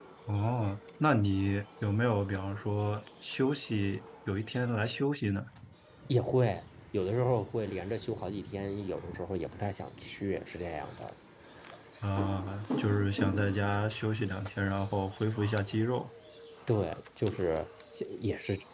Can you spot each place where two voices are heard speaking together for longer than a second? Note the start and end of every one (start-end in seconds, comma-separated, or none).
none